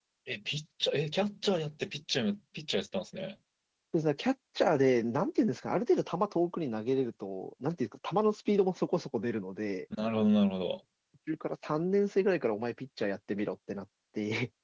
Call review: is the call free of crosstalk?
Yes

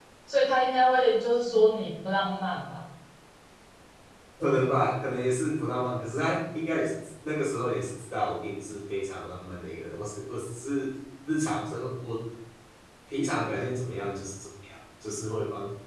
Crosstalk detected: No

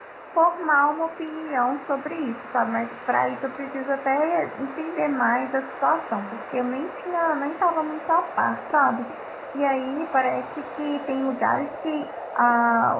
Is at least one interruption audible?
No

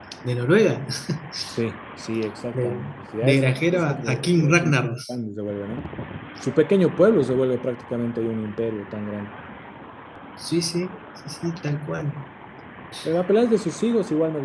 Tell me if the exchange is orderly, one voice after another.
No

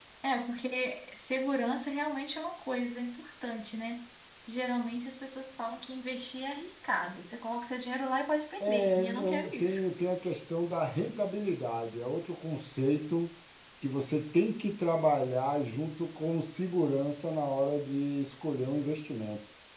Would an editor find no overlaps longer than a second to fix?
No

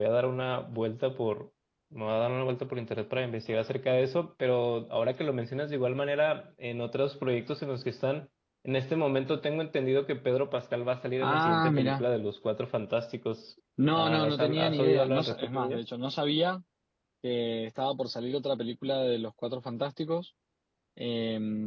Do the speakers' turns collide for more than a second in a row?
Yes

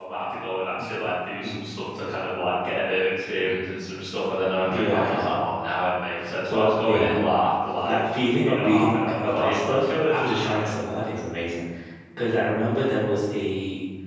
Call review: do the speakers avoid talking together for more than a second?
No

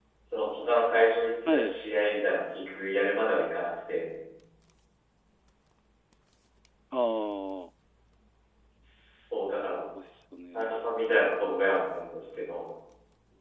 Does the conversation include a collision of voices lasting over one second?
No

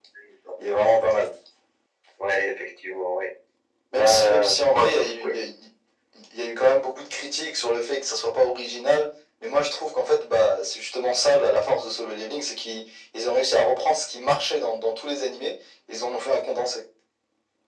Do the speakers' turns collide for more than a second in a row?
Yes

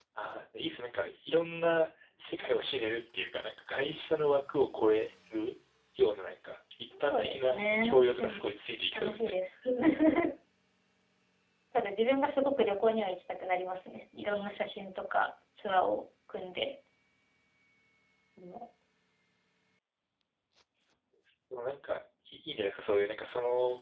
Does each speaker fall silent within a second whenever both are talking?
No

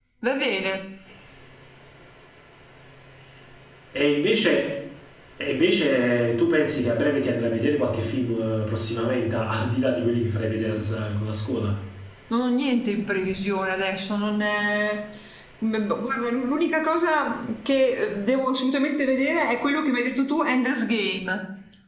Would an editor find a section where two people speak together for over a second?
No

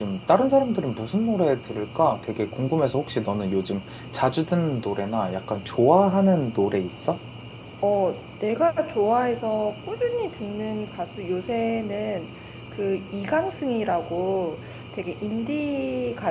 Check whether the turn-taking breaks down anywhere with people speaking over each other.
No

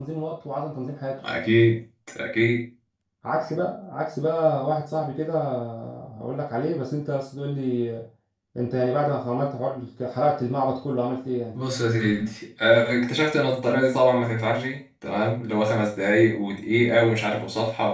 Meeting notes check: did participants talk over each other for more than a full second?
No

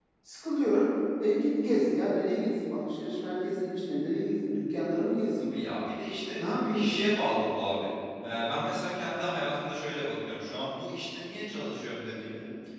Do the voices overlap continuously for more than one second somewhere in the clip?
No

